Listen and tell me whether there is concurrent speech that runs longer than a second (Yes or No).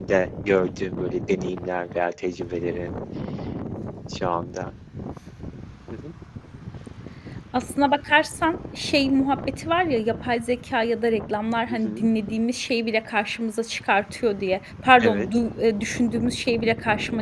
No